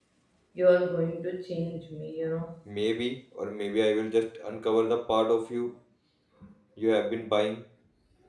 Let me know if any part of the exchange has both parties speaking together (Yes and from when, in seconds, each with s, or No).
No